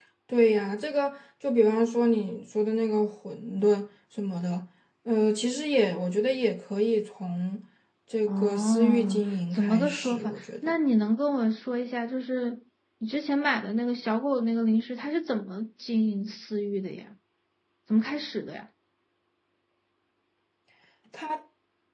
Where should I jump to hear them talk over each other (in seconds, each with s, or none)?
8.3 s